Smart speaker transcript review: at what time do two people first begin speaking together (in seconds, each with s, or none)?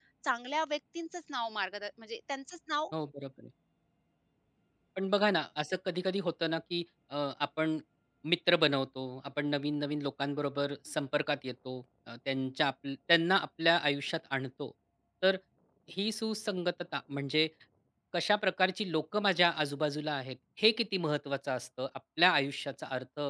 none